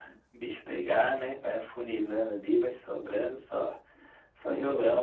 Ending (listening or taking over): taking over